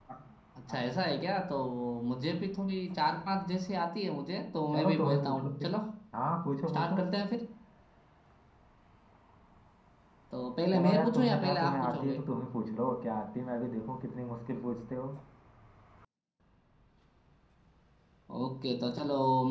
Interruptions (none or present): present